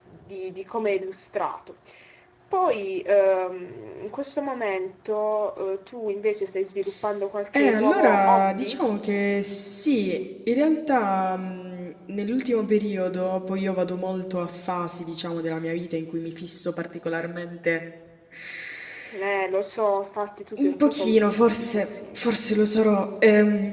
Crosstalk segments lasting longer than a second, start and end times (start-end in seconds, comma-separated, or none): 7.5-8.8, 20.6-21.9